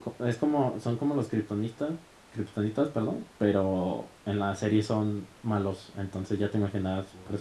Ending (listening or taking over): listening